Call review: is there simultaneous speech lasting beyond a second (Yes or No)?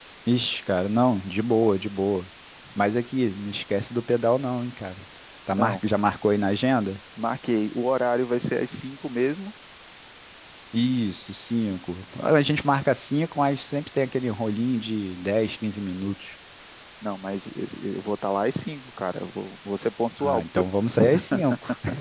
No